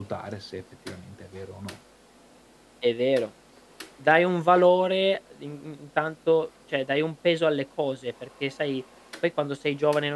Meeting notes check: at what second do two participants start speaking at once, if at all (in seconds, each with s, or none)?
none